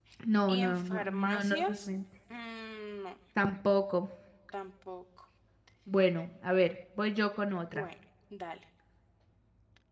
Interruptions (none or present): present